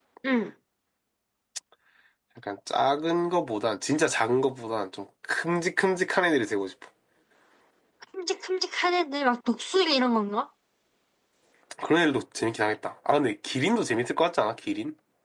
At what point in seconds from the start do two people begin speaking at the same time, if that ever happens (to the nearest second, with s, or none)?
none